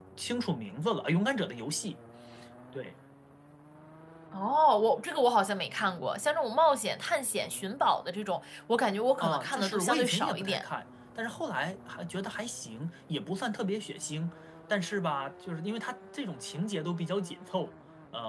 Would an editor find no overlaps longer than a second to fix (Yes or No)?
No